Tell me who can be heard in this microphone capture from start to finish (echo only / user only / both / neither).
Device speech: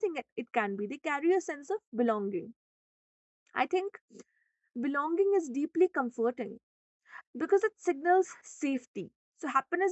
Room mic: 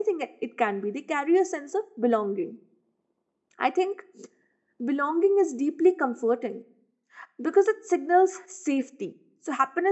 echo only